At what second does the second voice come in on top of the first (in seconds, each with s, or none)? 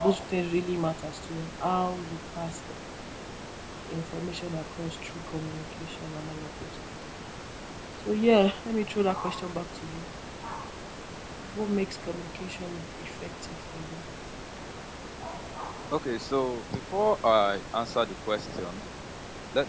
none